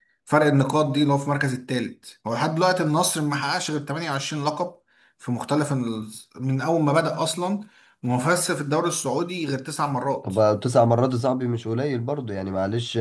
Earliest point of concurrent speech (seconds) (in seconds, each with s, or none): none